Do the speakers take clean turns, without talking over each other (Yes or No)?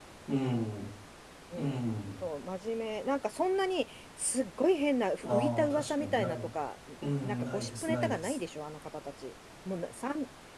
No